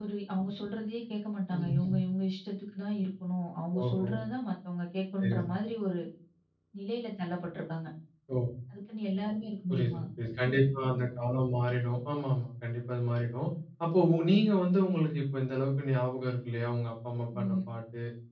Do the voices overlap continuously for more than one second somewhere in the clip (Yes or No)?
No